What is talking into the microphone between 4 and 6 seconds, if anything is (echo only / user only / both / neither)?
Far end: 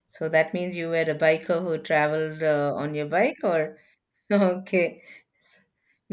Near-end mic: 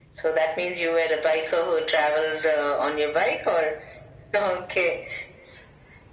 echo only